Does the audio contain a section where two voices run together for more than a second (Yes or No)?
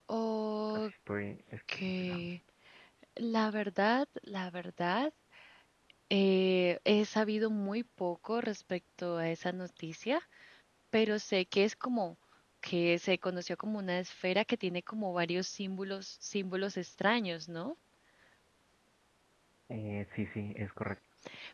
No